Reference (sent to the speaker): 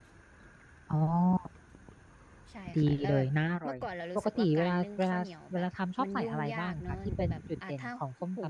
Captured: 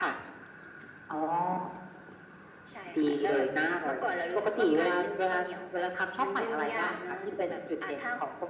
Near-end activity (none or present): present